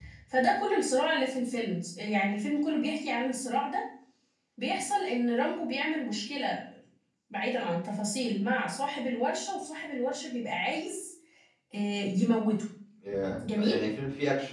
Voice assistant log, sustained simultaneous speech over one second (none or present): none